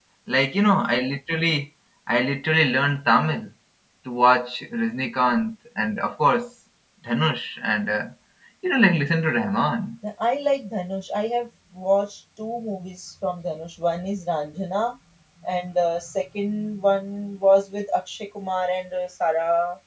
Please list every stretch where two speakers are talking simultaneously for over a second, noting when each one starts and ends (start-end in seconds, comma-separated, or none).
none